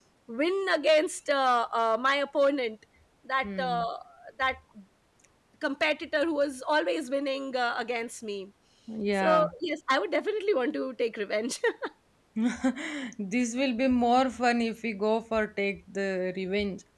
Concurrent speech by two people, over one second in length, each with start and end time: none

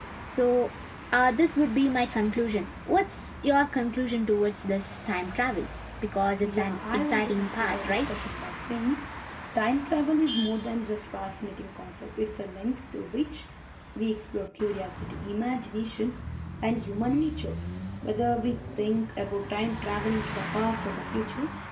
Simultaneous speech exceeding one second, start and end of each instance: 6.4-8.1

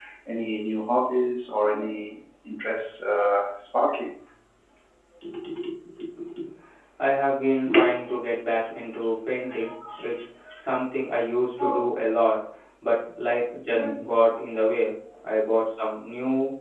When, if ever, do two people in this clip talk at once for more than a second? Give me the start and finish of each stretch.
none

